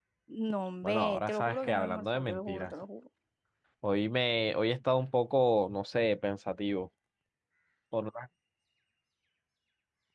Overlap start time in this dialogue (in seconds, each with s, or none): 0.8 s